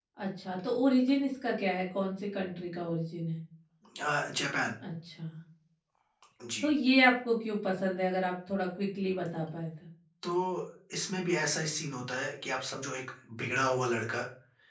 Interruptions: none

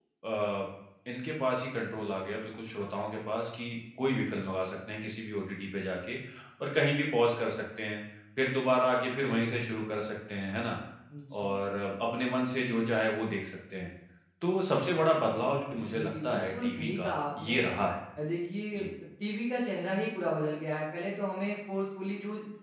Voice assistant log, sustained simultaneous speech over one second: present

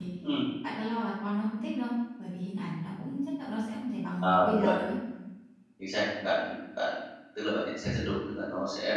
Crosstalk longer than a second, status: none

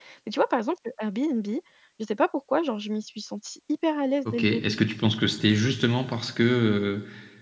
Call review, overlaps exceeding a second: none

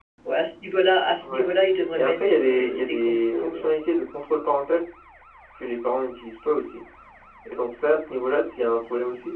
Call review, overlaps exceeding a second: present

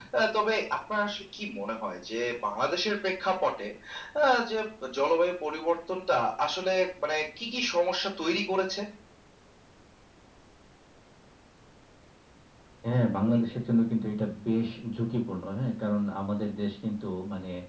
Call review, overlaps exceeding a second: none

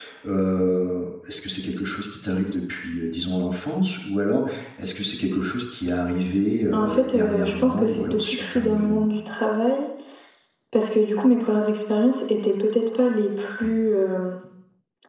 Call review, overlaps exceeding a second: present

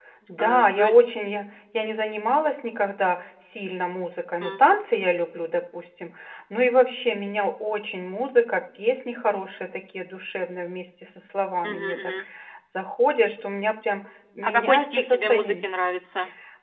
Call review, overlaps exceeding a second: present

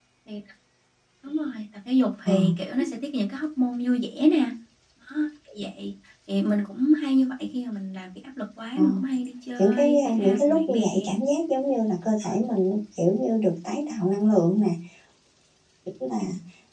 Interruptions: present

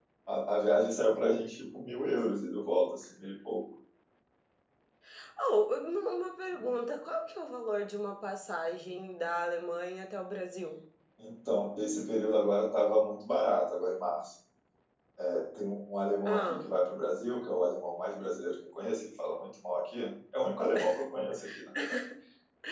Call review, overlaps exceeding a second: none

